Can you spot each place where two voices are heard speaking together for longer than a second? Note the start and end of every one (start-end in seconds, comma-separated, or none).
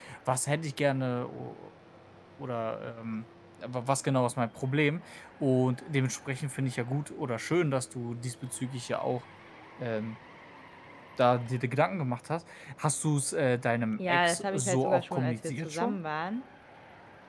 14.0-16.0